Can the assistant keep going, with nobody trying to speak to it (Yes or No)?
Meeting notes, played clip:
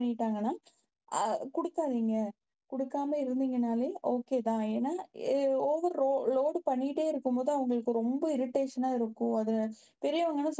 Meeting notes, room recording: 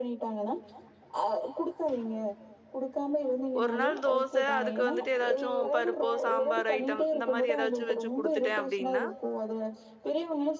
No